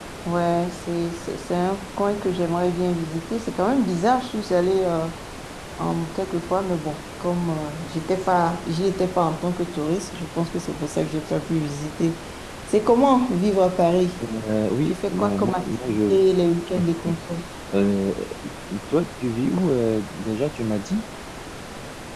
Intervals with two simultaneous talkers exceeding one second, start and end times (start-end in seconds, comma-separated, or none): 14.9-16.2